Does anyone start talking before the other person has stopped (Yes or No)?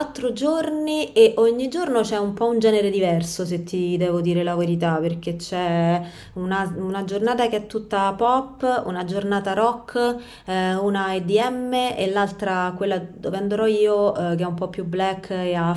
No